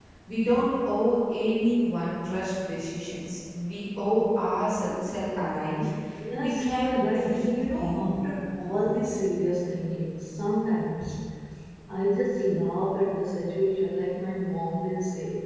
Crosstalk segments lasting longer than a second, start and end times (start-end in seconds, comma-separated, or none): 6.4-8.2